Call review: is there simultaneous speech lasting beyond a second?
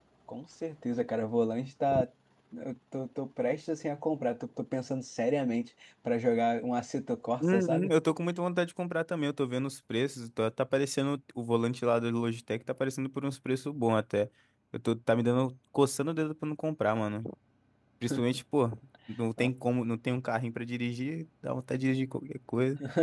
No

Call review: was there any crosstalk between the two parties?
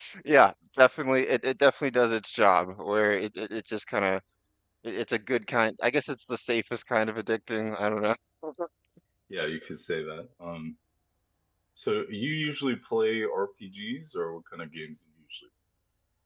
No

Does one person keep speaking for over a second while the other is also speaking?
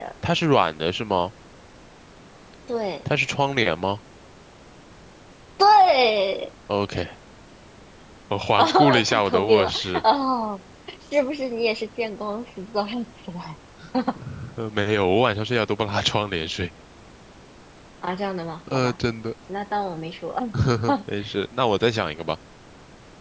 Yes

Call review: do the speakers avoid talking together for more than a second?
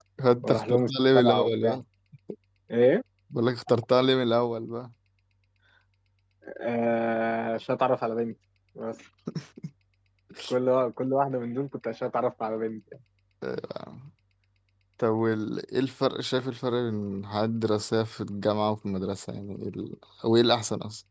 No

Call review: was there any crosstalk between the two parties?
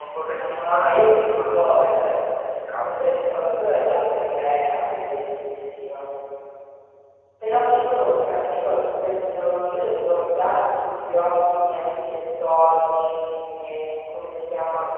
Yes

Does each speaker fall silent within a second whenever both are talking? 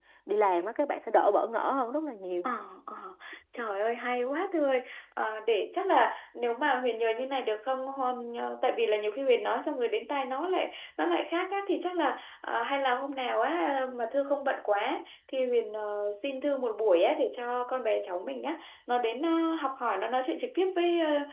Yes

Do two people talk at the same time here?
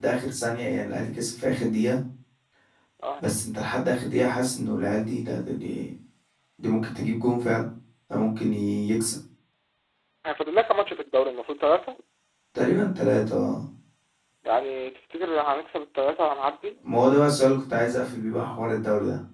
No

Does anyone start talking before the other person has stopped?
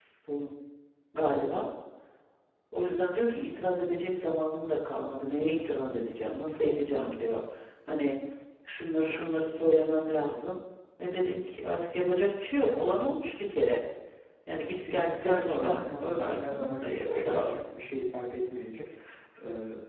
Yes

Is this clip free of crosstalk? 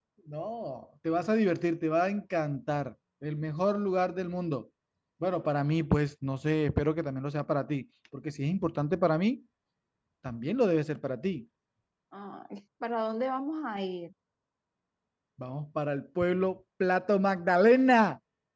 Yes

